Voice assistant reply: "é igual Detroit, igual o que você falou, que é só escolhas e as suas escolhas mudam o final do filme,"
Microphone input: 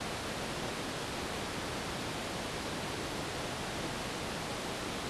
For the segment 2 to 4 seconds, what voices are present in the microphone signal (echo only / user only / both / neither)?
neither